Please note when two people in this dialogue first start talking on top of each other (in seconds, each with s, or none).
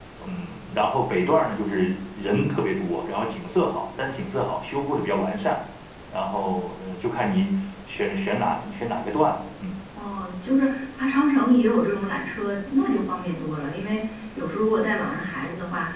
none